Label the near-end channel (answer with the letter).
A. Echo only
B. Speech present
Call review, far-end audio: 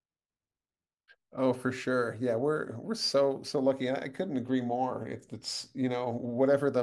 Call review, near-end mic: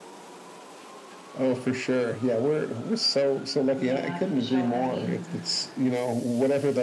B